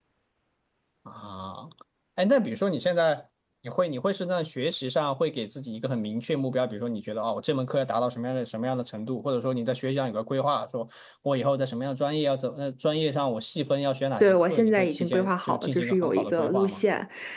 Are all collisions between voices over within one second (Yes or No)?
No